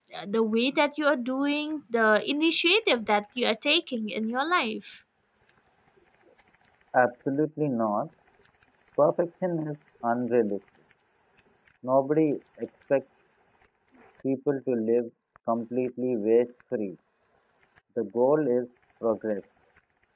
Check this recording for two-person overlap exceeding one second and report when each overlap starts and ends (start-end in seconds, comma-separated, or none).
none